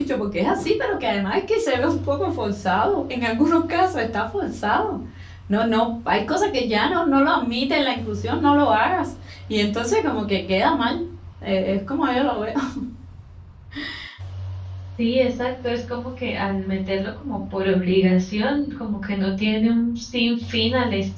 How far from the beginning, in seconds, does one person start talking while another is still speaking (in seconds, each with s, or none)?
none